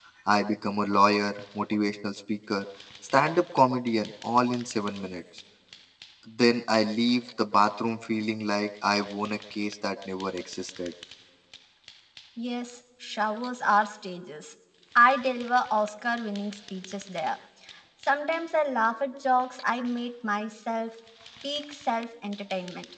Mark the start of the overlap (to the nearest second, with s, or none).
none